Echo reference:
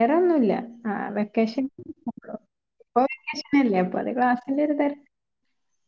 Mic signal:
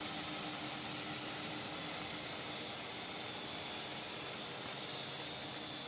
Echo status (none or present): none